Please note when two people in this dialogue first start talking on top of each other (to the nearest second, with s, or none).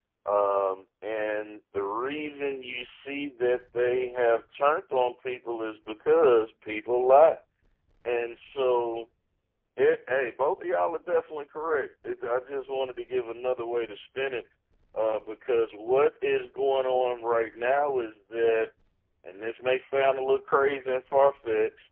none